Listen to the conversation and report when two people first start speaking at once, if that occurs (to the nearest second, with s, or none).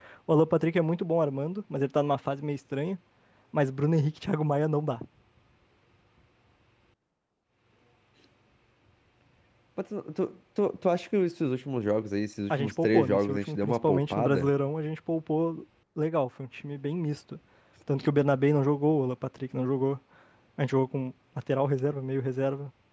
13 s